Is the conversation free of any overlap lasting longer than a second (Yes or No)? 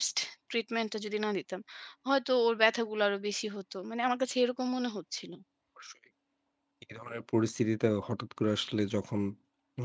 Yes